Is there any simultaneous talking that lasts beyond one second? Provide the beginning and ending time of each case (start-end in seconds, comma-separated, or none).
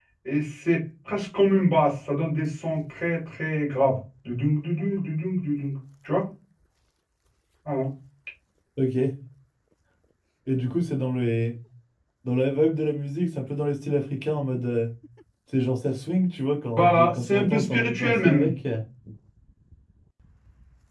16.8-18.5